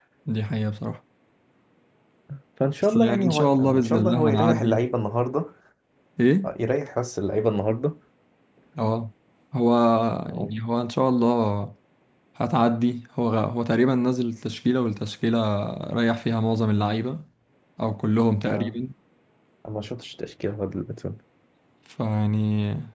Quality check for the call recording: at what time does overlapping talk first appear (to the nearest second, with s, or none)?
3 s